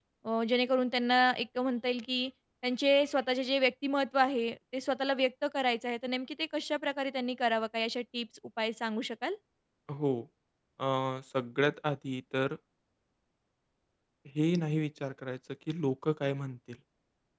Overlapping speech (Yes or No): No